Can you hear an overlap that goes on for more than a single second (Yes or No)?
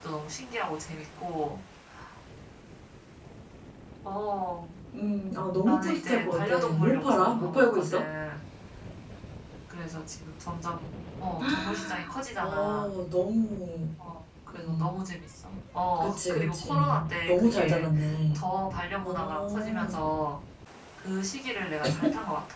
Yes